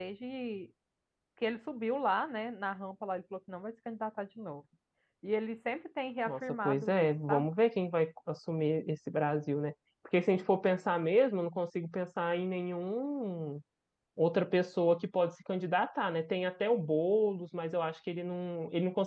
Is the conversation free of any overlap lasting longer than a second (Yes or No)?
No